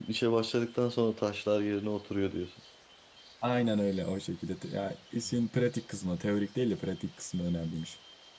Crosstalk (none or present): none